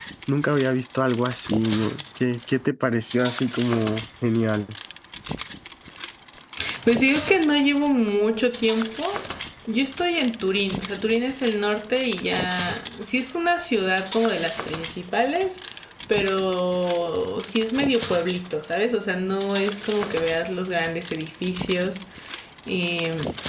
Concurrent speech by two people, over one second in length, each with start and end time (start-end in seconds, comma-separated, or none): none